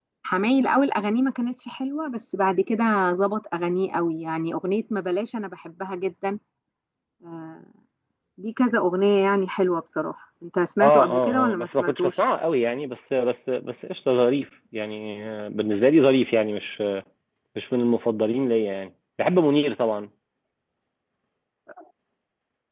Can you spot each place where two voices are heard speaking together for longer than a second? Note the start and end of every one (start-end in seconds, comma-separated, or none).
10.8-12.1